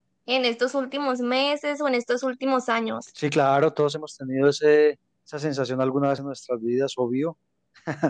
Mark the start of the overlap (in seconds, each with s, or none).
none